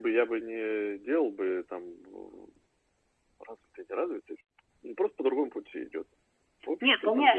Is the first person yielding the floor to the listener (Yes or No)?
Yes